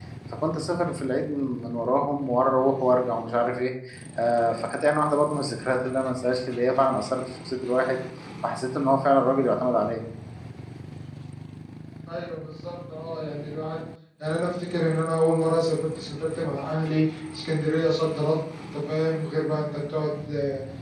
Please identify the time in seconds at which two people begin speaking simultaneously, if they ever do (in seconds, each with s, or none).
none